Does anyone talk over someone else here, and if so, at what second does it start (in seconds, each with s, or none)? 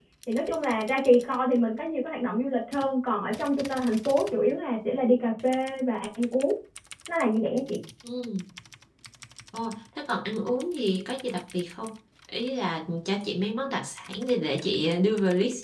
none